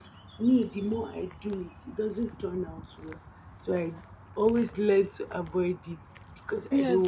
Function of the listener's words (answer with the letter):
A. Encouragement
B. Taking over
B